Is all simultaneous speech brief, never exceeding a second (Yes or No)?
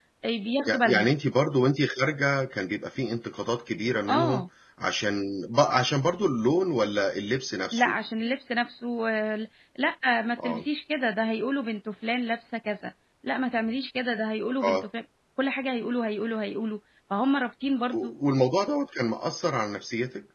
Yes